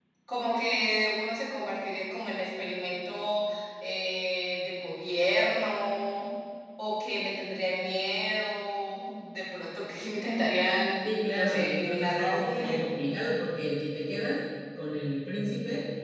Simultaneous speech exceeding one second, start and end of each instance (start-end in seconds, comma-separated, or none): 11.0-12.9